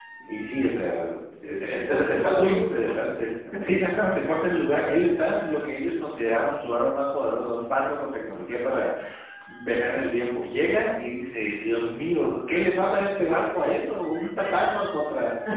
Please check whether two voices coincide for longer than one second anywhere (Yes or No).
Yes